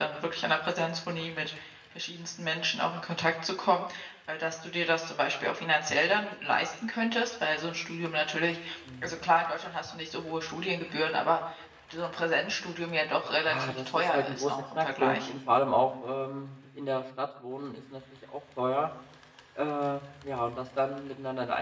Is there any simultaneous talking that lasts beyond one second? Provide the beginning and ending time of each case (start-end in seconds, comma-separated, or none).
13.5-15.3